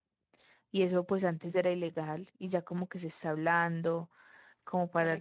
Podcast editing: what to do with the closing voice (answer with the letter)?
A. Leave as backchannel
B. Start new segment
A